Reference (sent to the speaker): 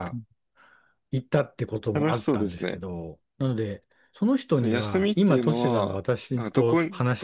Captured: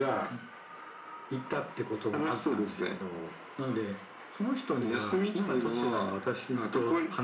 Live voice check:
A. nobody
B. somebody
A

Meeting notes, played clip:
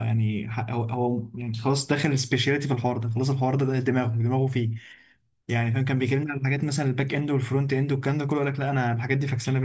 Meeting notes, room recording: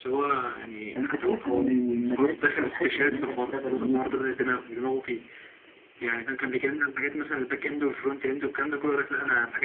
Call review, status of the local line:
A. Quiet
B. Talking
B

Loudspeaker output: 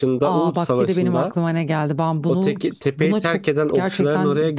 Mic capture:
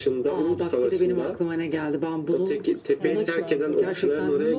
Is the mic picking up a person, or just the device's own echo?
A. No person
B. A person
B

